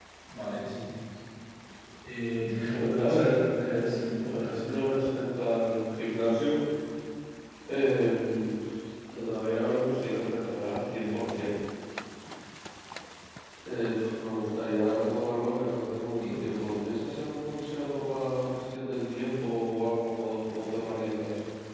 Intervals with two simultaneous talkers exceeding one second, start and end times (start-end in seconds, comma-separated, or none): 2.7-4.6